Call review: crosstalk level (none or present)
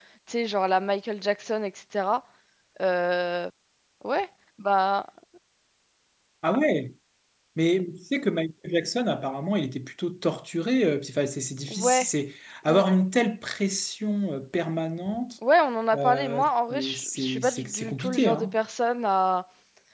present